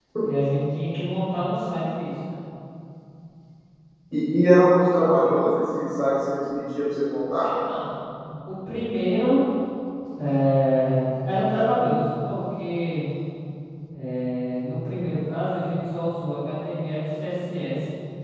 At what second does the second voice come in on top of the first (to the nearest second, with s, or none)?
none